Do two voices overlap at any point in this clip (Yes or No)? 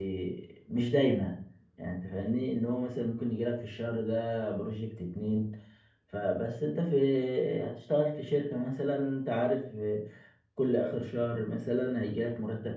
No